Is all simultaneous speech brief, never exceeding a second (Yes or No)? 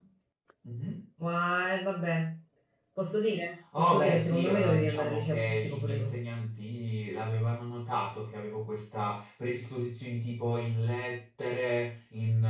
No